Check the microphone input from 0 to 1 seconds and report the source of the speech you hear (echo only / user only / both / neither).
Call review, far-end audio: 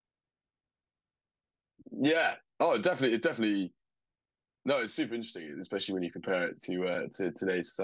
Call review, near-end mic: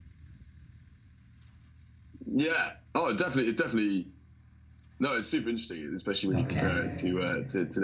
neither